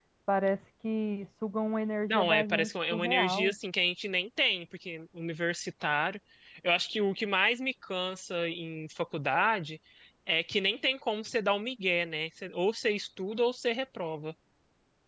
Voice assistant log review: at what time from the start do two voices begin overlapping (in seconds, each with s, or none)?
2.1 s